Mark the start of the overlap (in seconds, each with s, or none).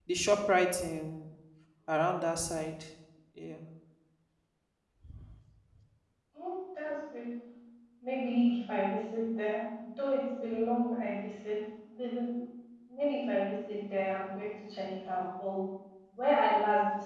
none